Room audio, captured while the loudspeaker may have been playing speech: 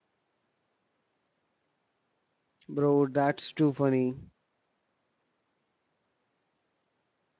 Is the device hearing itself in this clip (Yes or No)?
No